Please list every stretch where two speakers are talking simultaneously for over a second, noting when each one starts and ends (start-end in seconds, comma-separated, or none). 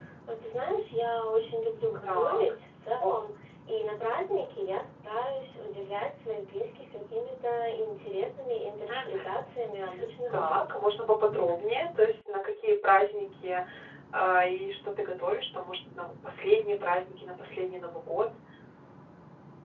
none